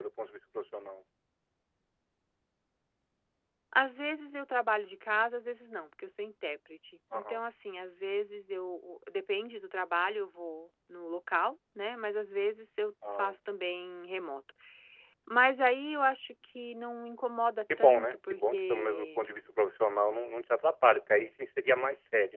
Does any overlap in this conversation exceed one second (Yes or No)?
Yes